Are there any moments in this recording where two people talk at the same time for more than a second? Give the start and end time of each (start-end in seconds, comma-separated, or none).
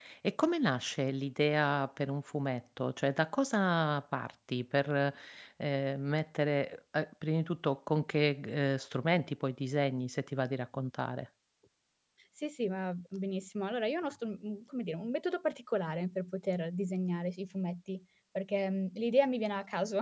none